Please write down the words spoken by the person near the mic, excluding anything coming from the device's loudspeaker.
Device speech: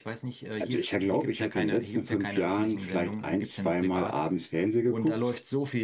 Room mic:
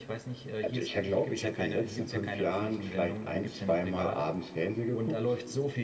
none

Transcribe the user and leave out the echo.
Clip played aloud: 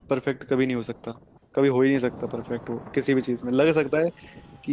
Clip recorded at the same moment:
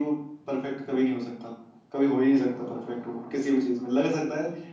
none

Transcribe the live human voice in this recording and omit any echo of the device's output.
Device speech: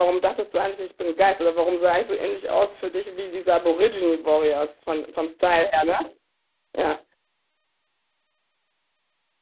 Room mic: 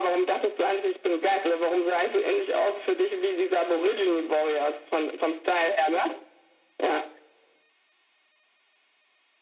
none

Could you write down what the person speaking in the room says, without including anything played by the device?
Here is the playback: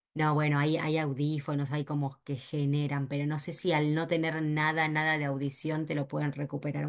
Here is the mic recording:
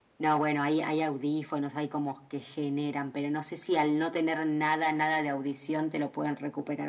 none

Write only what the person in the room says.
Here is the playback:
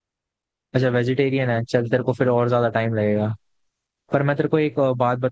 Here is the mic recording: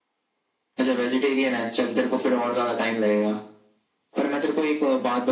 none

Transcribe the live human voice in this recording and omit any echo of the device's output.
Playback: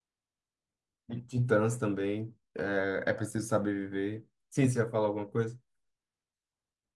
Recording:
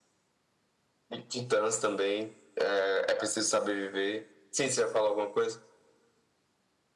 none

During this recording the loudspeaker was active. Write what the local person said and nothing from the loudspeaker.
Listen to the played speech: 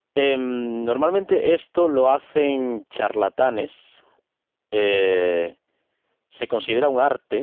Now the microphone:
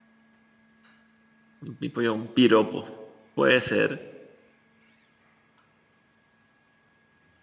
Un pimpollo, un piropo. Puede ser.

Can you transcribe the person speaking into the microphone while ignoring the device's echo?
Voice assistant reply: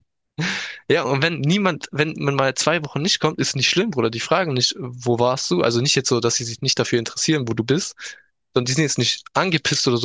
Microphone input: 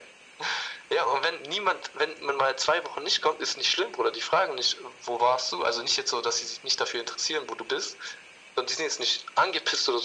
none

